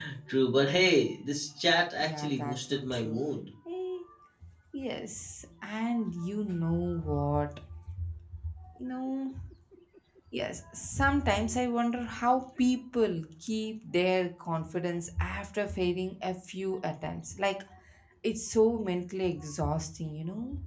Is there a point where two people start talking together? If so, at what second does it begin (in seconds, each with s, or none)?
2.0 s